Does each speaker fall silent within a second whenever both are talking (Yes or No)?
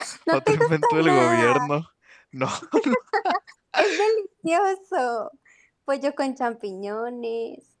No